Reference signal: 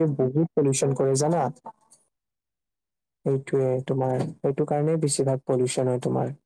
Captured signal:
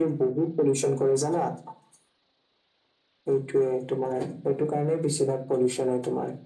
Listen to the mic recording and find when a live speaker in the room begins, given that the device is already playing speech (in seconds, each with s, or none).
none